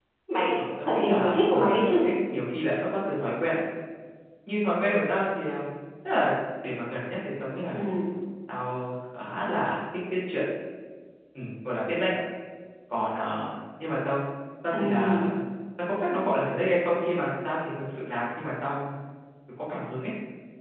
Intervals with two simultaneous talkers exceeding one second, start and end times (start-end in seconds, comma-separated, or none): 0.6-2.0